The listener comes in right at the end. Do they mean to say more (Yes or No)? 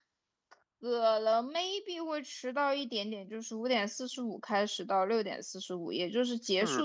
No